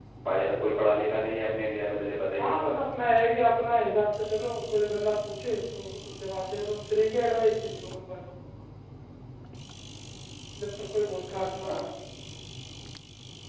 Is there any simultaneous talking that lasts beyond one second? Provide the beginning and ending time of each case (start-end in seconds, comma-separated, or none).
none